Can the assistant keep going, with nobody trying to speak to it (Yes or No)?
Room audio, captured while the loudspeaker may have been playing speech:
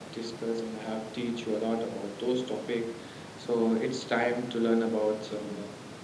No